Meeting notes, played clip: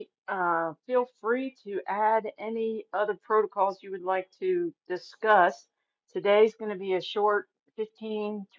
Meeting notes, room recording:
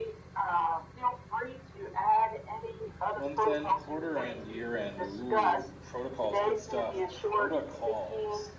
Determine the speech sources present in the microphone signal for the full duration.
both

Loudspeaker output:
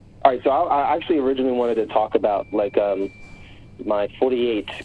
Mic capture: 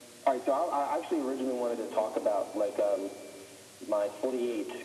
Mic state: echo only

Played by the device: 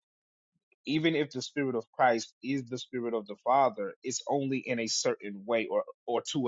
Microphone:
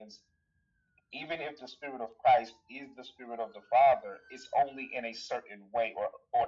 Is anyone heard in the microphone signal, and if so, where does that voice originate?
echo only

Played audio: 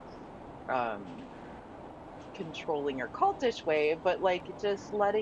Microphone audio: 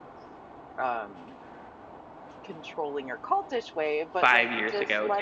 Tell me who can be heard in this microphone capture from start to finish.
both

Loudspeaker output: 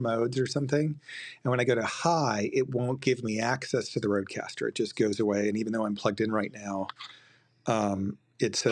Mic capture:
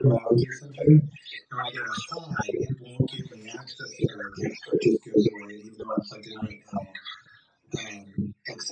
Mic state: echo only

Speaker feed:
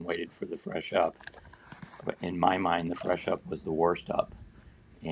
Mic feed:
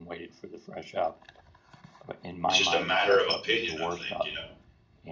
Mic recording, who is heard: both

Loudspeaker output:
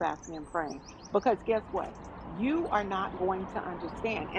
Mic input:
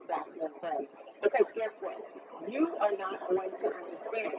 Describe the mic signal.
echo only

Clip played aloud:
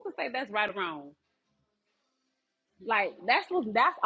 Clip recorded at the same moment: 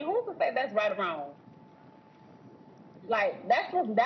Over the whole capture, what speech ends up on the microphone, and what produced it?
echo only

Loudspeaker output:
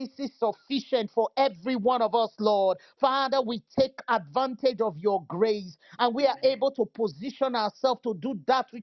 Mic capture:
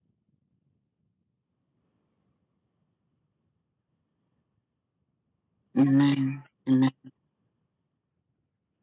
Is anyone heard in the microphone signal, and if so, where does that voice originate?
user only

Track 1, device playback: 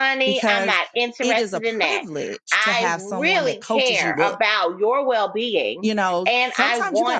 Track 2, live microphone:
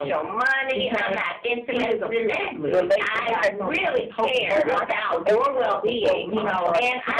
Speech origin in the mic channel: both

